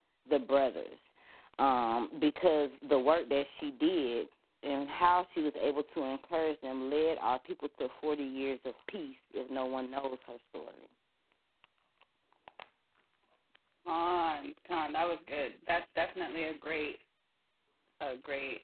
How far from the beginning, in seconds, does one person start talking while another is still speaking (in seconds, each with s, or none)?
none